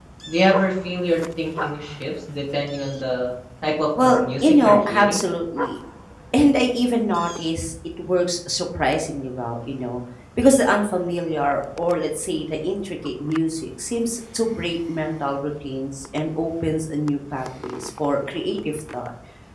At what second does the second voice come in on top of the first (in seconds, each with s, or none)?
4.0 s